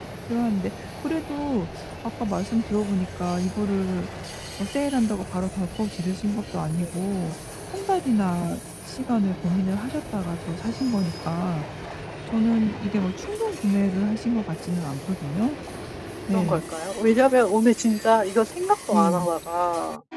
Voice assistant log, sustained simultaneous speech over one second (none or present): none